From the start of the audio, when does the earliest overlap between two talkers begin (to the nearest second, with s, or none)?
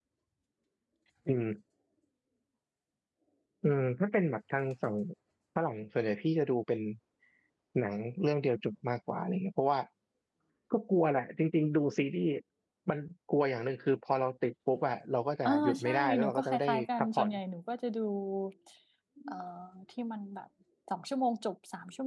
15 s